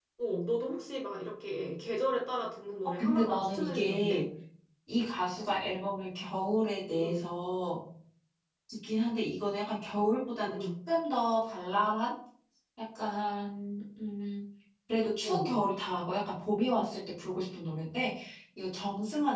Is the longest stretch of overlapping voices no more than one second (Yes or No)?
No